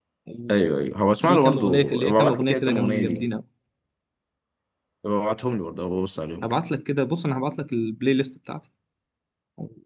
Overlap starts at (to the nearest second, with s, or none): 1 s